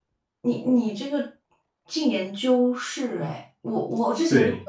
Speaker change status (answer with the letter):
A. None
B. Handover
A